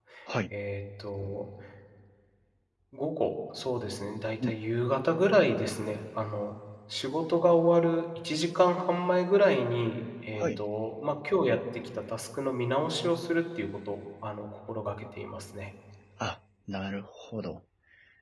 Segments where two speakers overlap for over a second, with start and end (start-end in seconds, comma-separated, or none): none